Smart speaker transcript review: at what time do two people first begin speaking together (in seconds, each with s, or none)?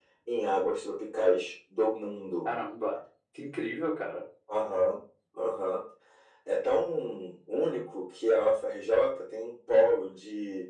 none